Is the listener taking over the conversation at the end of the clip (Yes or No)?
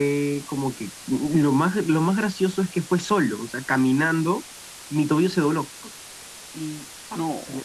No